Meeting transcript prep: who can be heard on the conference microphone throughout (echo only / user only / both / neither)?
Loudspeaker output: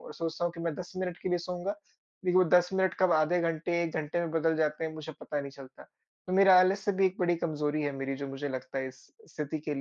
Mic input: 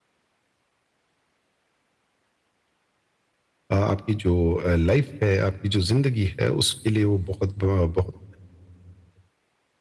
user only